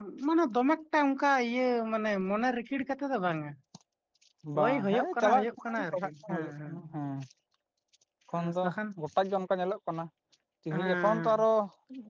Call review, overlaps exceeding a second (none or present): present